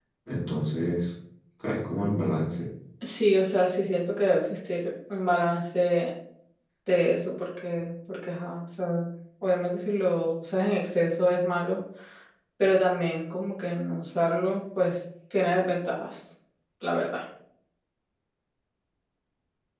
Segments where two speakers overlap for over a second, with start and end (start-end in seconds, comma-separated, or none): none